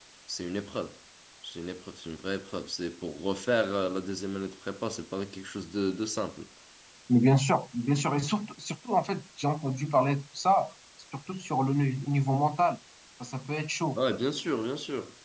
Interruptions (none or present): none